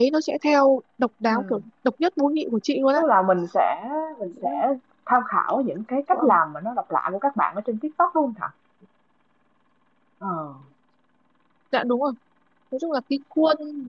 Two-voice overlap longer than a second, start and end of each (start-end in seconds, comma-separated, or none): none